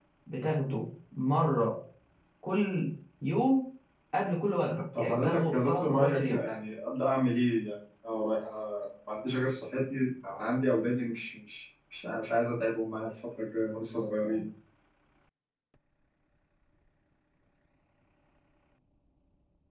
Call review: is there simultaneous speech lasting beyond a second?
Yes, from 5.0 s

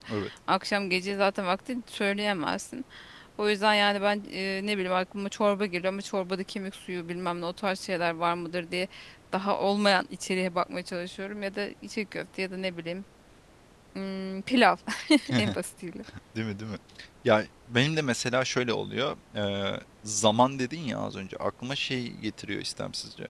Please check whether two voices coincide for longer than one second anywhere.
No

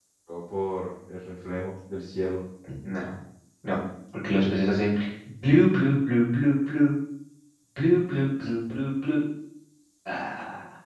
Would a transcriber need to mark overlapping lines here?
No

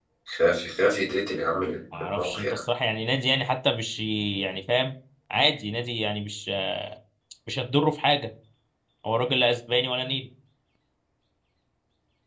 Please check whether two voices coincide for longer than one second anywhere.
No

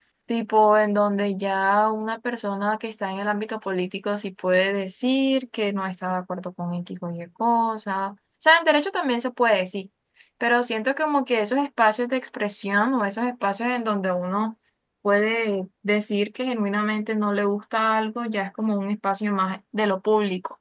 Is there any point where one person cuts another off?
No

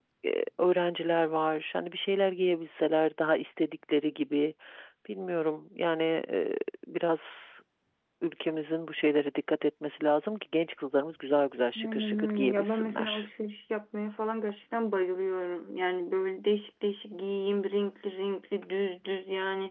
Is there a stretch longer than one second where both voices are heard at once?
Yes, from 11.8 s

